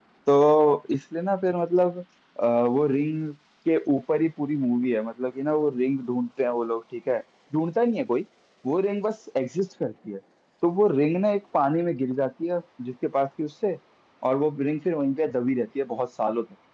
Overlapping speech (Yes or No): No